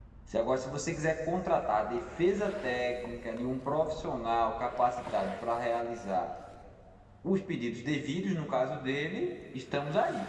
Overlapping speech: No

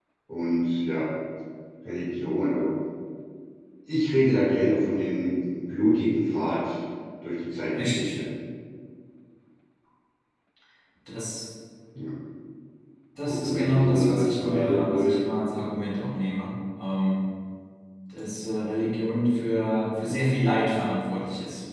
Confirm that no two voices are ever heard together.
No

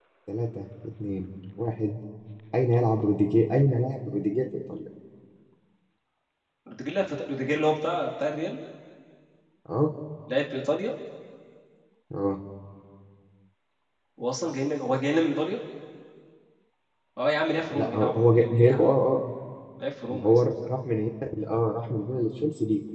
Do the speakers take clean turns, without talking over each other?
No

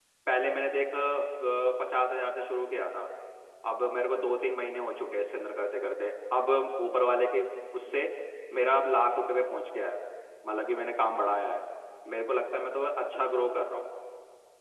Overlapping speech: No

